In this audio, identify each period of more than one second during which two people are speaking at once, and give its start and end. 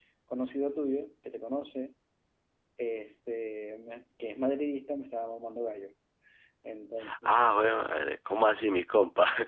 none

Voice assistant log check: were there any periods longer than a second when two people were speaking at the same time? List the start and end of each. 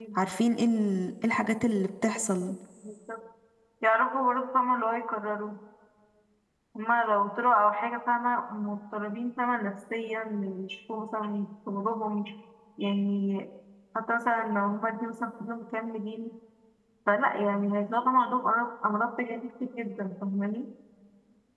none

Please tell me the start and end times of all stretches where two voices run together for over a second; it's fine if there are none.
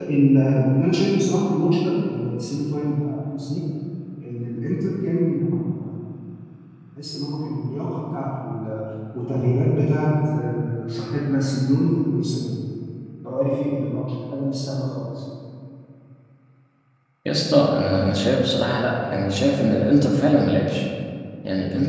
none

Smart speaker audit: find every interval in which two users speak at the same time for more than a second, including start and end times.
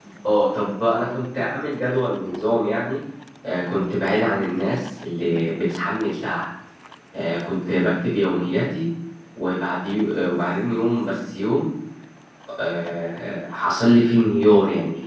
none

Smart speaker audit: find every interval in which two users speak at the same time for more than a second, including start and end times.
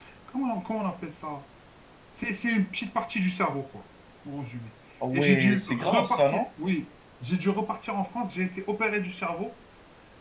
5.1-6.4

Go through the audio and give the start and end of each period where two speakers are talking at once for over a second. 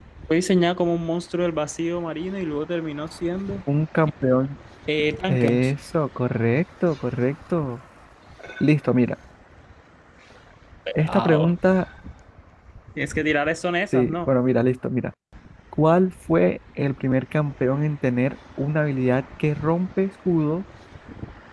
none

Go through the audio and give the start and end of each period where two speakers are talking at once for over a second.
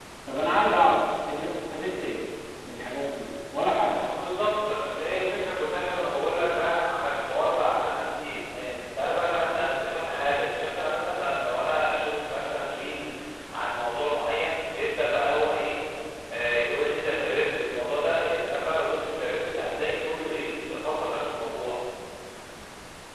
none

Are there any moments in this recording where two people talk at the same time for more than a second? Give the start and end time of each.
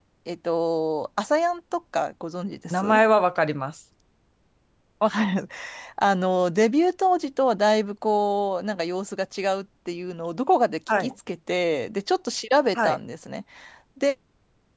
none

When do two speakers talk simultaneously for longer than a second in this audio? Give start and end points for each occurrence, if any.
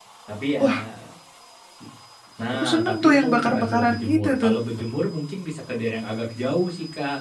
2.5-4.5

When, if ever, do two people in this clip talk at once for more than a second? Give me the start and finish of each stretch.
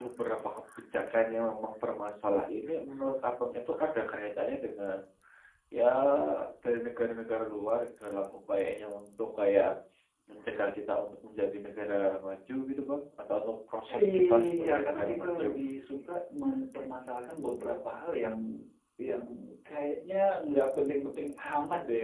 14.0-15.5

